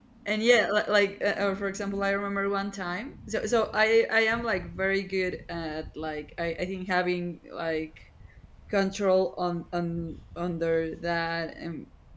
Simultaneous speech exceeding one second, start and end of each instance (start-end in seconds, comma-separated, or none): none